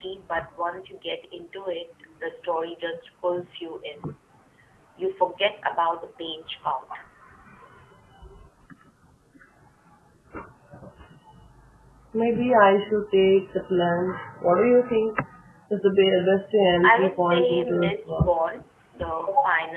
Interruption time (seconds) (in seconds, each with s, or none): 16.8 s